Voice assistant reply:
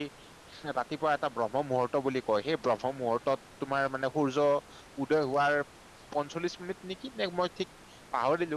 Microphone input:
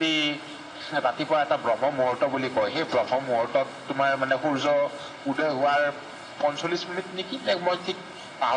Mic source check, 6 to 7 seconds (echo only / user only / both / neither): echo only